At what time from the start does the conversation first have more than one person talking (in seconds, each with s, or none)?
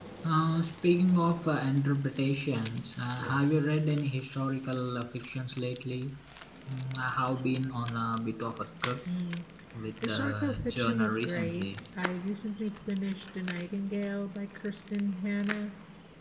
10.0 s